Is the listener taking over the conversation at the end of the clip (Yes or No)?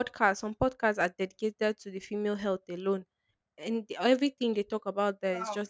No